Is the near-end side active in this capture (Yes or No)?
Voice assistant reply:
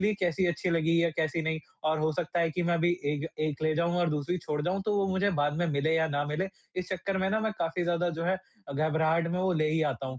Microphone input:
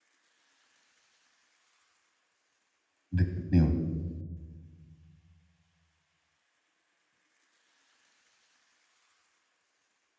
Yes